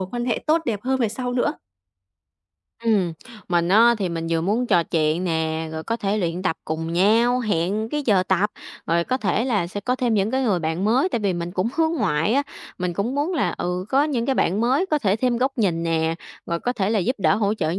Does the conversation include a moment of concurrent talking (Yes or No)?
No